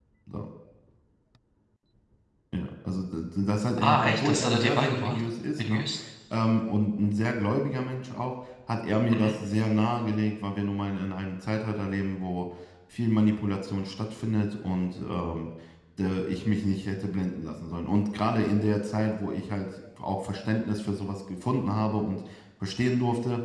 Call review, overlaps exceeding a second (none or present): present